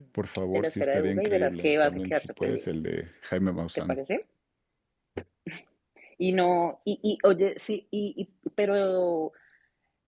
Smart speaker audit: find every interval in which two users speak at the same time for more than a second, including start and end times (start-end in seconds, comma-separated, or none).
0.5-2.7